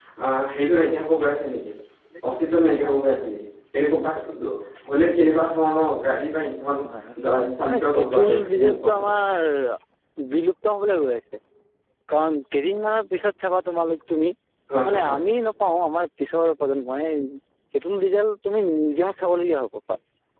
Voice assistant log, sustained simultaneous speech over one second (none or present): present